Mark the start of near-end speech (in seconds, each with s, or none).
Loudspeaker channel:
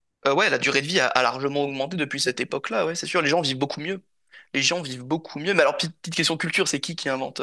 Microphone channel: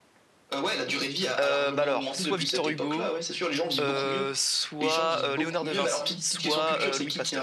1.4 s